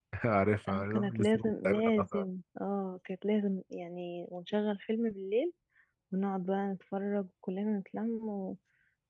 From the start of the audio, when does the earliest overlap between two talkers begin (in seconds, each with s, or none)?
0.7 s